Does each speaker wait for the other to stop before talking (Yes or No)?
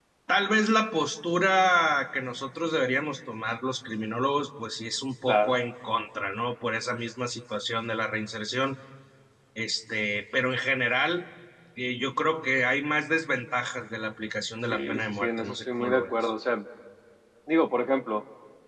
No